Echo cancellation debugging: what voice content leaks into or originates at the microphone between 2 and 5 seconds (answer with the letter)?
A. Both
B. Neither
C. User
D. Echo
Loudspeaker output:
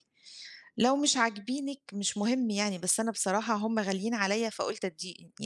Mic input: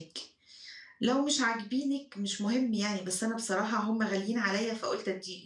D